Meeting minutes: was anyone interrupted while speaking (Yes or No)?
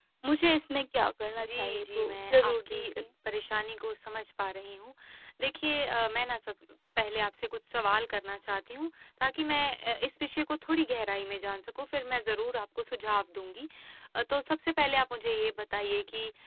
Yes